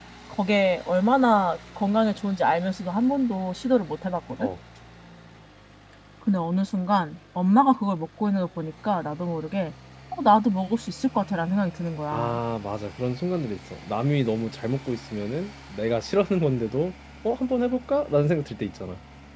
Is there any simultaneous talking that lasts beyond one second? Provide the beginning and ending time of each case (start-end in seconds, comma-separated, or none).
none